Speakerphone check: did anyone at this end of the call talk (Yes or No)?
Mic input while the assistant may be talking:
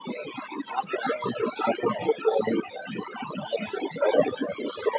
No